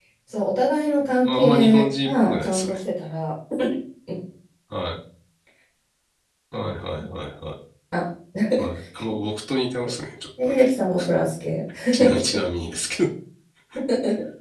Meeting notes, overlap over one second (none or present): present